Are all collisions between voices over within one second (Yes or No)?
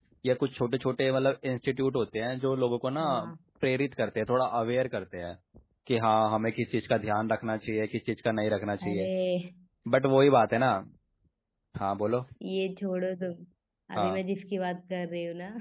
Yes